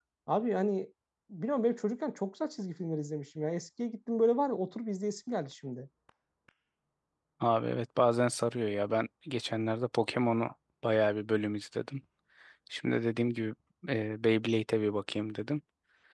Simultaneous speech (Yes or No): No